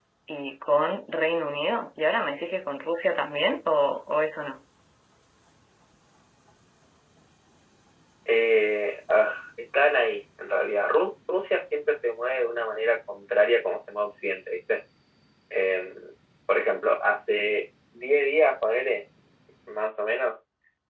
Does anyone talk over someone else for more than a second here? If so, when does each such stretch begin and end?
none

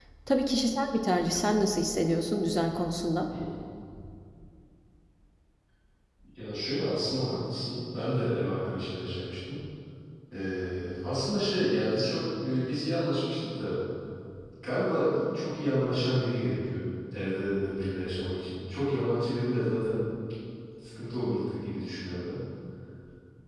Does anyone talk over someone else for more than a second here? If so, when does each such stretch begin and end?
none

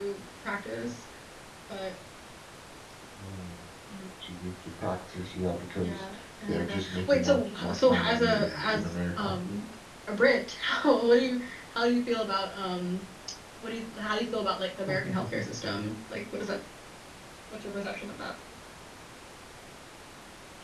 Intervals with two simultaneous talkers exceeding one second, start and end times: 6.5-9.3

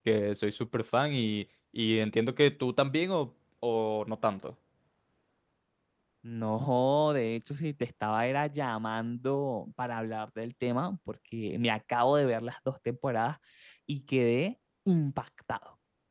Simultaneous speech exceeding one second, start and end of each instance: none

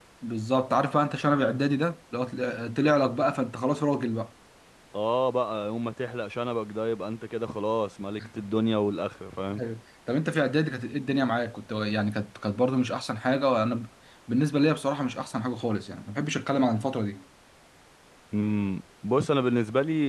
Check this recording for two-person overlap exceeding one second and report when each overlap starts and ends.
none

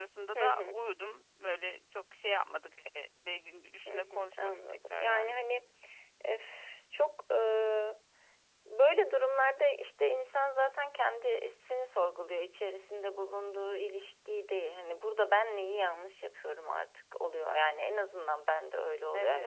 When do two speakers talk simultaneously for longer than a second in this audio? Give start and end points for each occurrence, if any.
3.9-5.4

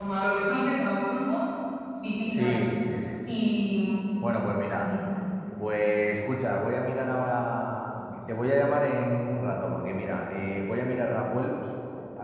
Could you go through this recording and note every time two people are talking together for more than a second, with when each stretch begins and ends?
none

